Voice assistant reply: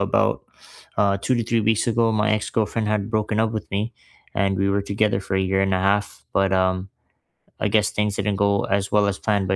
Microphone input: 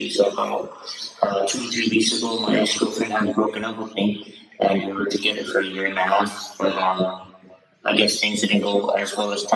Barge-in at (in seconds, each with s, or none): none